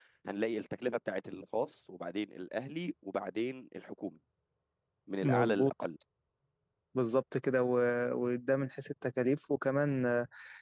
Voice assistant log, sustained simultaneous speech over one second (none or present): none